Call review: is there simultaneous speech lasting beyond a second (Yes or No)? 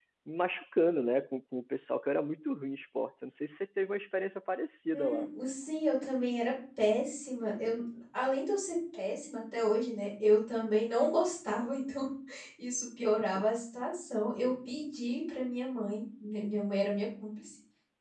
No